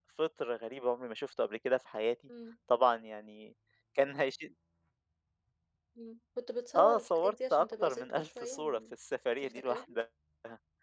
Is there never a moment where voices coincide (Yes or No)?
No